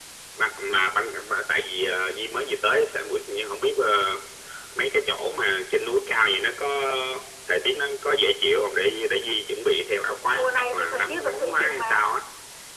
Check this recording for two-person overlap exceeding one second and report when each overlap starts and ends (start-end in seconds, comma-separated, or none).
10.3-12.1